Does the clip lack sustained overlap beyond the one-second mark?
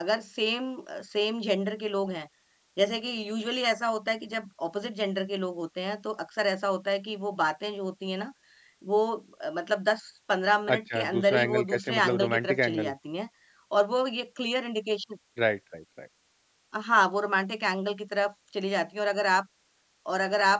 No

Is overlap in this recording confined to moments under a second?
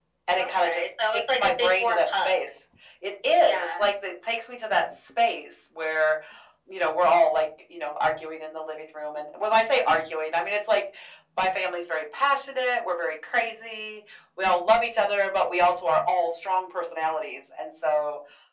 No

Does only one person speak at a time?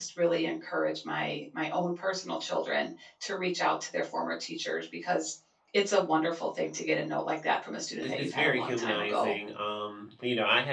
No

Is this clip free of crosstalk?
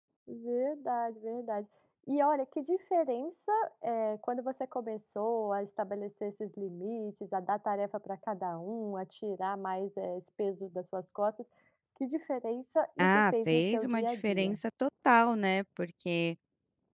No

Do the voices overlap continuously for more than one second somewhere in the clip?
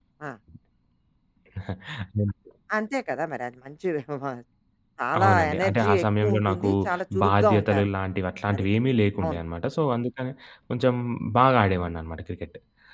Yes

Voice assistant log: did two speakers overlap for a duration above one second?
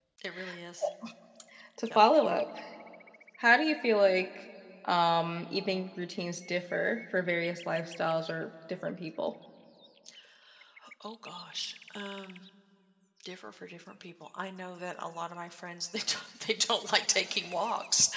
No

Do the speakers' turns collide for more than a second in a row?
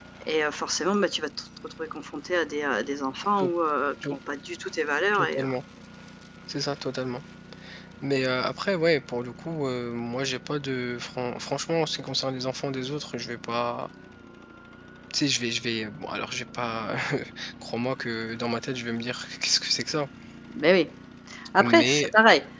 No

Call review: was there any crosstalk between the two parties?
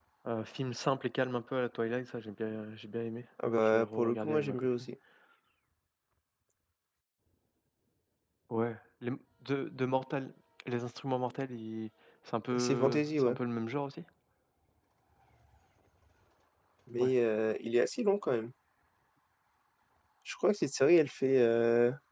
Yes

